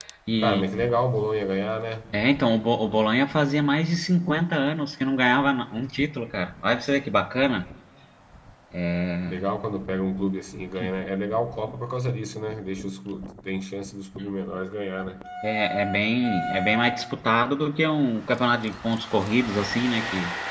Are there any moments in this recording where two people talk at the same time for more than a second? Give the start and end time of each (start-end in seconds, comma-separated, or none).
none